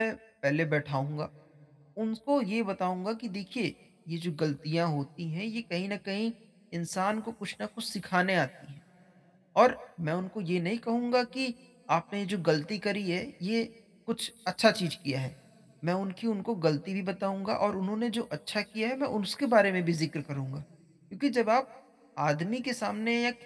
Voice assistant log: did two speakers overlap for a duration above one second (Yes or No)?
No